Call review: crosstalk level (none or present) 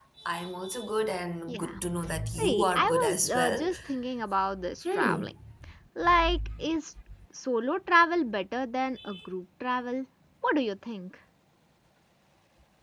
present